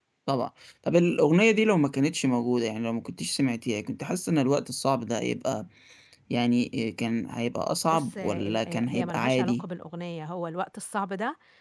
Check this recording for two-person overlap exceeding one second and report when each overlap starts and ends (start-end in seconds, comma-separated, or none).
7.9-9.6